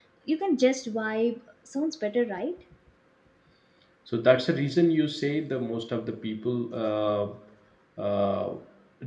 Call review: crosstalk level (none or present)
none